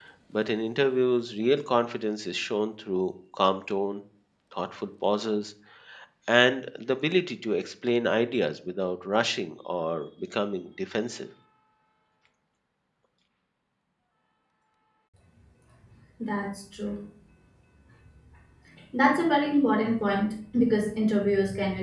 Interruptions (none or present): none